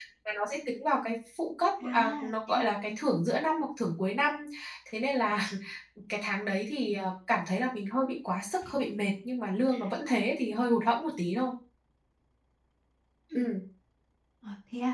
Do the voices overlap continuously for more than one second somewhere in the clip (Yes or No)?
Yes